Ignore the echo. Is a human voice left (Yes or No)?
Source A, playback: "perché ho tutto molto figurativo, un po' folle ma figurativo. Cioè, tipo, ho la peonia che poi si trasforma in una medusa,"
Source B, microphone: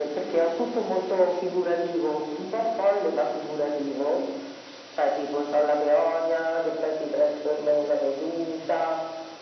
No